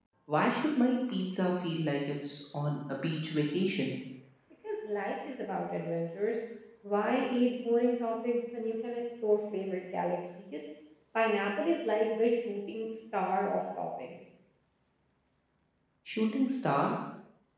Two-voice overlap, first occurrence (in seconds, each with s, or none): none